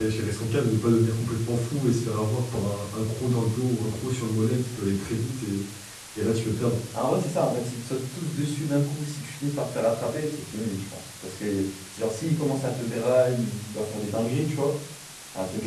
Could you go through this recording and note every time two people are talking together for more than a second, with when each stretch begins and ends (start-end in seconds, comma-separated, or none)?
none